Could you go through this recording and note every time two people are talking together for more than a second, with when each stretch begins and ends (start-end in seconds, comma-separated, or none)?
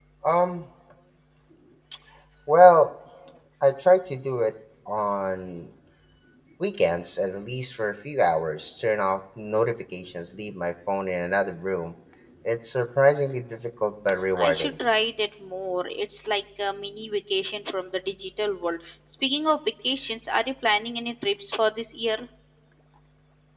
none